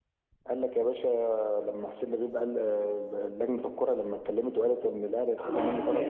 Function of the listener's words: taking over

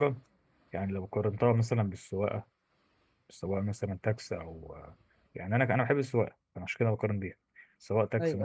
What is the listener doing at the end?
listening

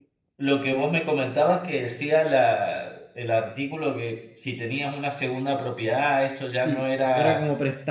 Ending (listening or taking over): taking over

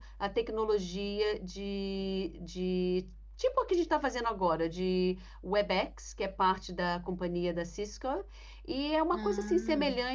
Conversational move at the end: listening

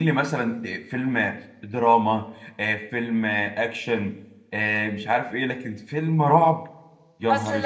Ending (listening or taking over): taking over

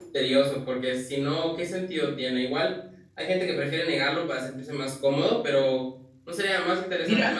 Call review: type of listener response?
taking over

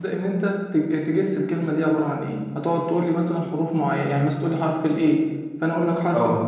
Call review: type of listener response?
listening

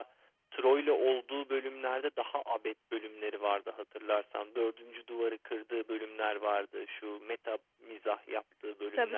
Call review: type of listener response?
taking over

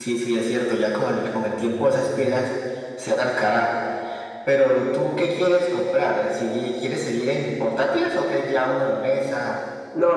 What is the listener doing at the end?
taking over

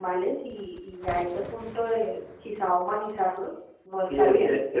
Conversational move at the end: taking over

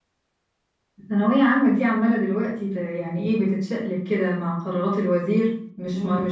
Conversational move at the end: listening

